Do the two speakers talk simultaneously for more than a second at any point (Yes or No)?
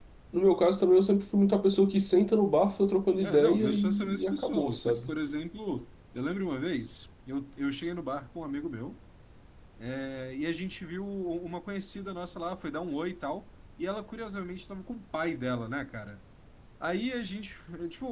Yes